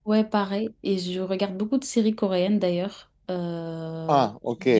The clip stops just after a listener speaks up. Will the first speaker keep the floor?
No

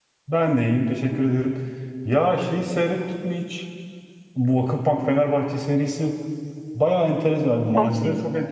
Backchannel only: Yes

